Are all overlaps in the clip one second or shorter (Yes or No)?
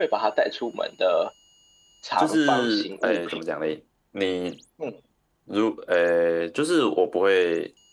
No